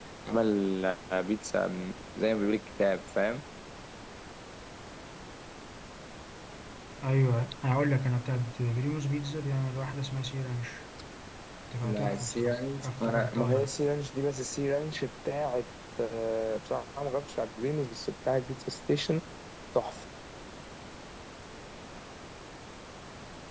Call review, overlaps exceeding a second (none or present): present